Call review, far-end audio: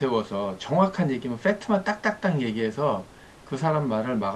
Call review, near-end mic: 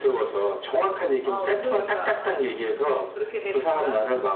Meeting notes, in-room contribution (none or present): present